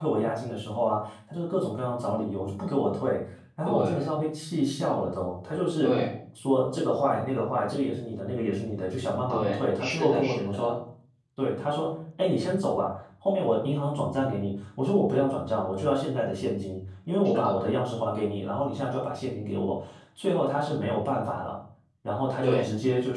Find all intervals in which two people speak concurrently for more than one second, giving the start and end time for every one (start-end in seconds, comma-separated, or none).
9.3-10.8